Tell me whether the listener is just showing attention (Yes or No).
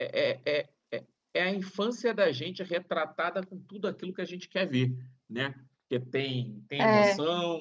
Yes